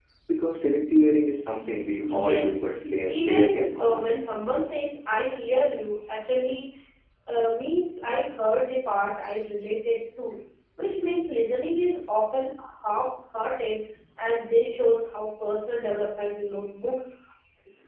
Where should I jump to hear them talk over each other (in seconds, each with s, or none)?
2.0 s